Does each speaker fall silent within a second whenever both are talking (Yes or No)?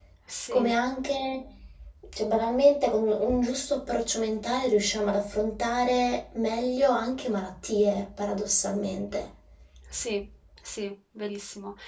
Yes